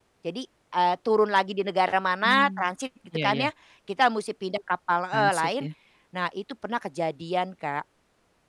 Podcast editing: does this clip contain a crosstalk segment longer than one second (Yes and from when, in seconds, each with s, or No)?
No